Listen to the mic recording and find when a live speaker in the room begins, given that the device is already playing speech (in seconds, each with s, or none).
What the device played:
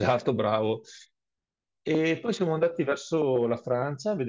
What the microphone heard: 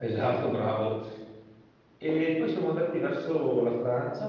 none